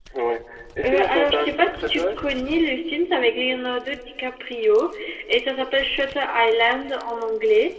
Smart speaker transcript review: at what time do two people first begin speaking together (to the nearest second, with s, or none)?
1 s